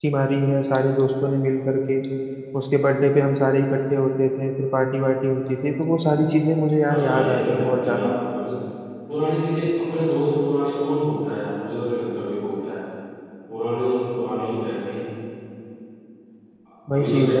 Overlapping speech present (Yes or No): Yes